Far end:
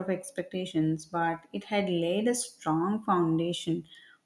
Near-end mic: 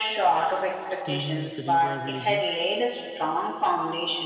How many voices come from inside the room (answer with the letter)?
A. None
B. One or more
B